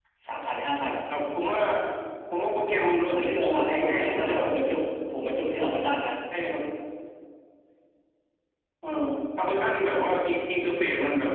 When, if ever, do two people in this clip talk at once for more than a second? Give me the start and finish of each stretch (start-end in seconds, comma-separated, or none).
3.1-4.5